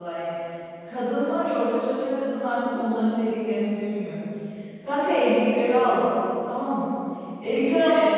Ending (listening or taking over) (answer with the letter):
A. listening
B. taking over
A